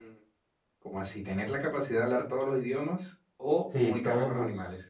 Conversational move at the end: taking over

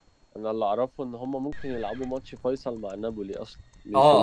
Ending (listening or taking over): taking over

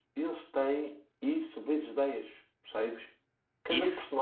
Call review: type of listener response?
listening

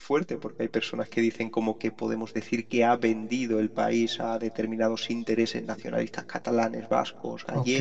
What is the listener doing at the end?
taking over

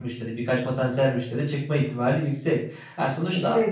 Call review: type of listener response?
listening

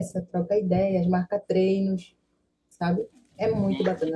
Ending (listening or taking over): taking over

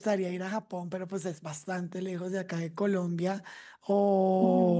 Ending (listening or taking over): listening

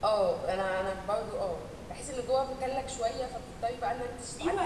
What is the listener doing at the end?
taking over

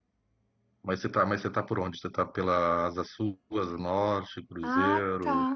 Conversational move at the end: taking over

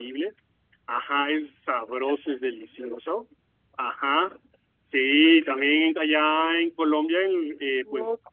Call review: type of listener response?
listening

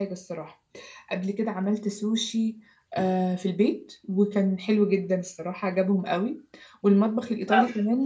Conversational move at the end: listening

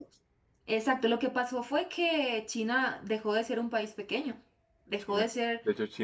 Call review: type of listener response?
taking over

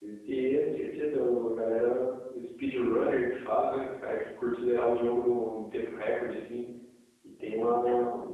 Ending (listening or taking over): listening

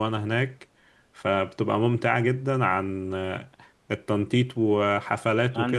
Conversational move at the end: listening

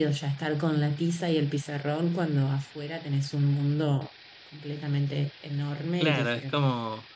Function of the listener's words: taking over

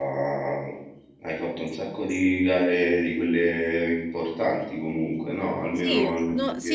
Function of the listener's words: taking over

